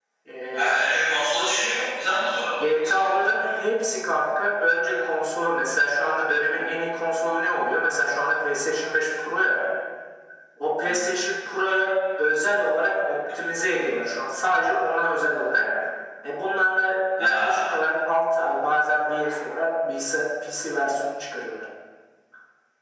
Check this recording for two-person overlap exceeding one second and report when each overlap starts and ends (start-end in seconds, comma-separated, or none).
none